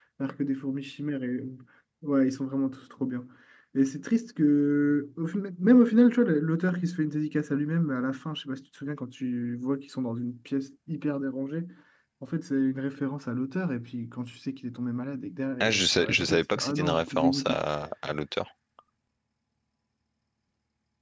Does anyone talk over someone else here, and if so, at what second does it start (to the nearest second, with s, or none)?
16 s